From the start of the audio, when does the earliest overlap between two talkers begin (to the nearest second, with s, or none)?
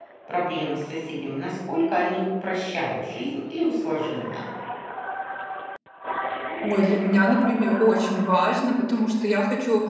none